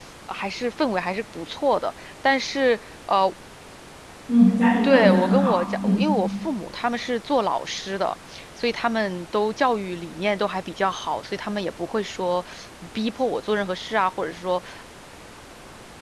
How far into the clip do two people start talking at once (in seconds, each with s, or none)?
4.8 s